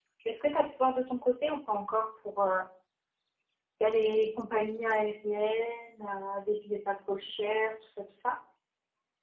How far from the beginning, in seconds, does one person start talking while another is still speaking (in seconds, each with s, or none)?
none